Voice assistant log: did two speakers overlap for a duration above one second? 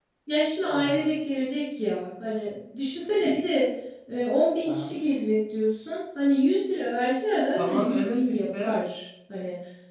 Yes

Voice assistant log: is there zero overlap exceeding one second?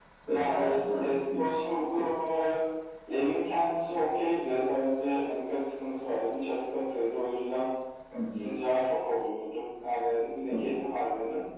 No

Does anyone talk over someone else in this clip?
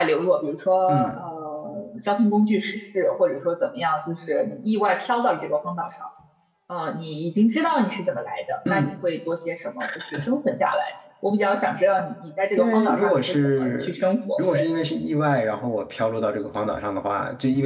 Yes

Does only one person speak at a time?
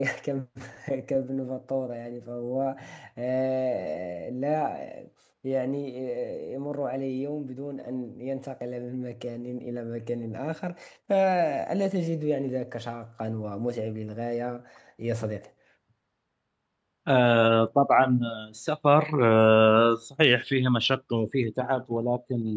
Yes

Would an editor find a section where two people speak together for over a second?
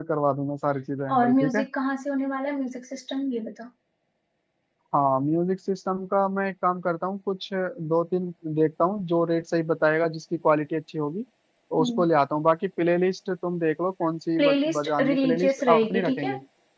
Yes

